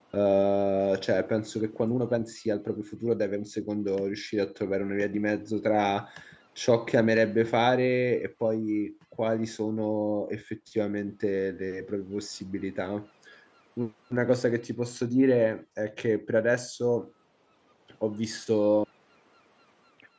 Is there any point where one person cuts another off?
No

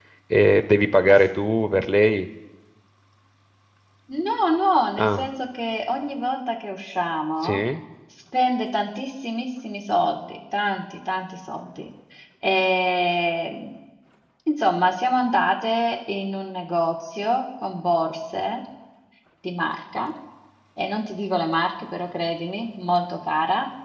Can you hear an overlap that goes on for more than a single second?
No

